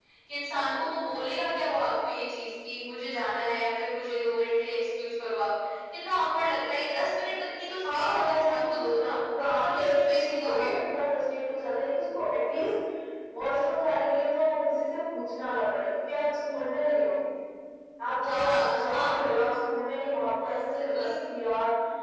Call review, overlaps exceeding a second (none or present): present